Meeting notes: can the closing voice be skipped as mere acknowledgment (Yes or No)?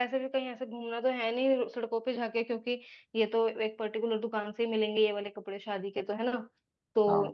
Yes